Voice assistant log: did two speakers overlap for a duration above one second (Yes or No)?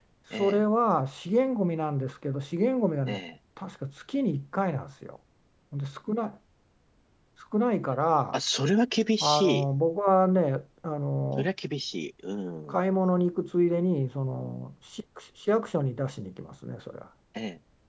No